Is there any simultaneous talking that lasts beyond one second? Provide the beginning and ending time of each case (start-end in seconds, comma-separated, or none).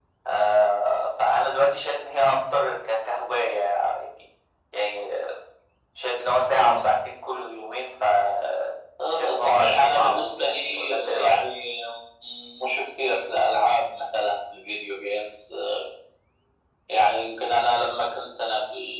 9.2-11.4